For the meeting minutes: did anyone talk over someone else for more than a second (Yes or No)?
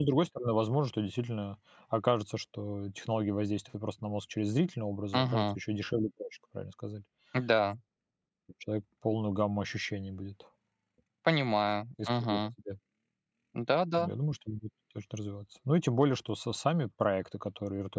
No